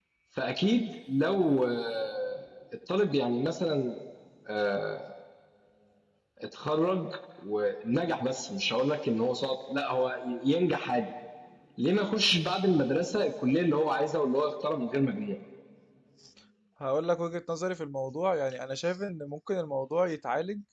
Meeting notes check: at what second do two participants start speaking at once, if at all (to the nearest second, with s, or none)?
none